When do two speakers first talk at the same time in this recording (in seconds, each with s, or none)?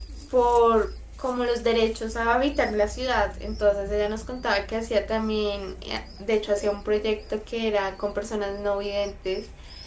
none